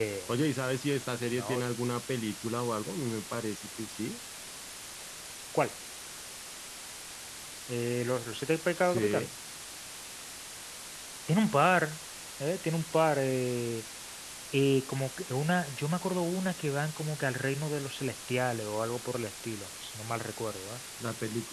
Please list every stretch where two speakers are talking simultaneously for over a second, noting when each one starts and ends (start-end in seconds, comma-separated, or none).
none